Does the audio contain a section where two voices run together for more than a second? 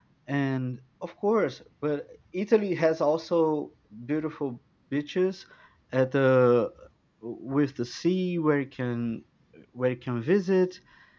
No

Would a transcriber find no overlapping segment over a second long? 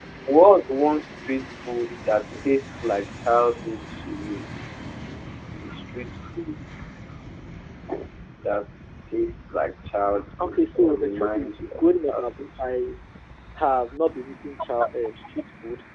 No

